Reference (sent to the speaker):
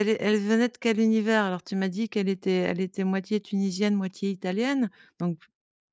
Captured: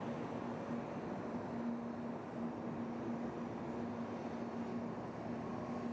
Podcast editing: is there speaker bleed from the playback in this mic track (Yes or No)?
No